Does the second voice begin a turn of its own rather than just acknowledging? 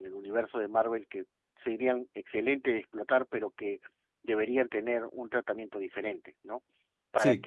No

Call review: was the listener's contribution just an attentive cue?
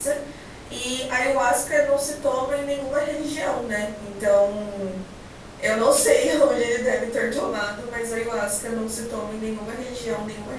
Yes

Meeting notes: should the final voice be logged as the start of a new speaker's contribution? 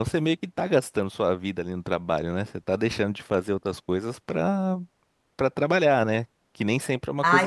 Yes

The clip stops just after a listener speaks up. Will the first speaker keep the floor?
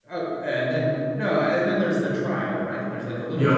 No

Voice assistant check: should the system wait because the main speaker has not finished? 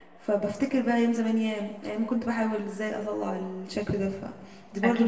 No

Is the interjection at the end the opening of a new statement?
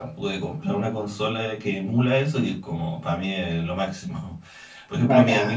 No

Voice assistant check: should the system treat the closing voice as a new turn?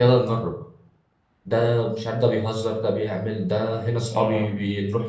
No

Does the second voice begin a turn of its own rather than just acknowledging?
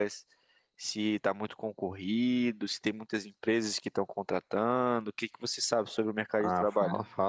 Yes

